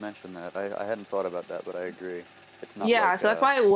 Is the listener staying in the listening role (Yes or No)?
No